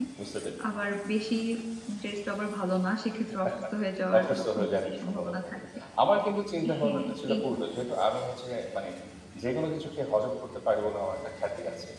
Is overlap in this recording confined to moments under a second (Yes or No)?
No